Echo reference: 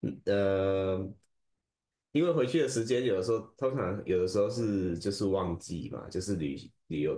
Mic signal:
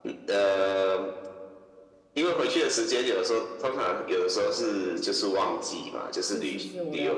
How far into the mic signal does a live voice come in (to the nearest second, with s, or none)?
6 s